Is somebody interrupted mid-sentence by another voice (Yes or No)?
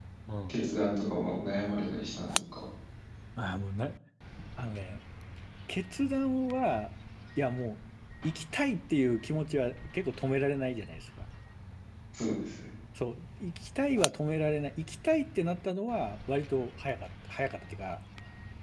No